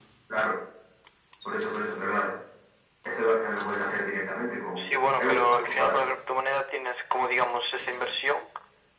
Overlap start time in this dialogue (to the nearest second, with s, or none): 5 s